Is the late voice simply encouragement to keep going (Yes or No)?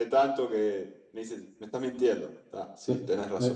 No